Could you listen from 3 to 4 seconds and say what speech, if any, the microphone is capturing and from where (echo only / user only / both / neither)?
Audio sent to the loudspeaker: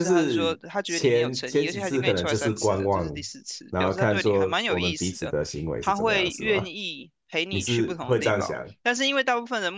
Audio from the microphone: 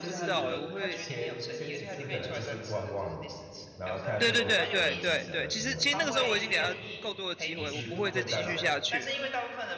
echo only